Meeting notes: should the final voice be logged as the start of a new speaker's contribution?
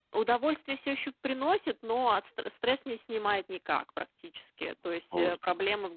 No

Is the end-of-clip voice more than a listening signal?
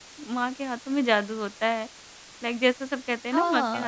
Yes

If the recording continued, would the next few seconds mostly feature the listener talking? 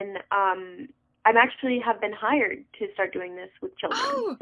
Yes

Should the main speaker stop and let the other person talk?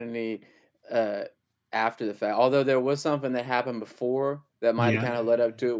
No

